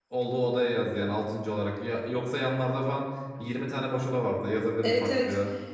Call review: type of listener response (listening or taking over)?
taking over